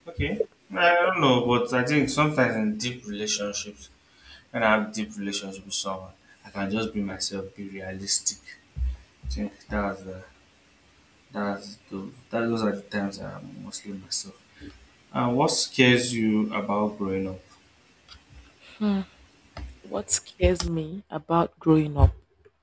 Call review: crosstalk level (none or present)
none